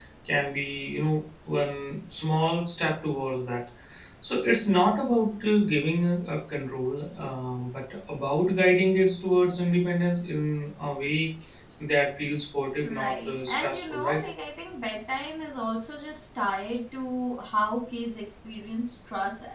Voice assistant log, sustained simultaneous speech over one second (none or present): present